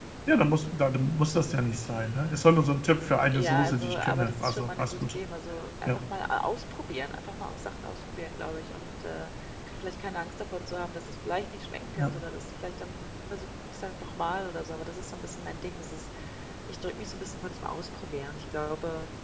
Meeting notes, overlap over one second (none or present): present